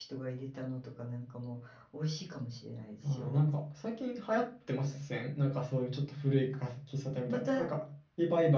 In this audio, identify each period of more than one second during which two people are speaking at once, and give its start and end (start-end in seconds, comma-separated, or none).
none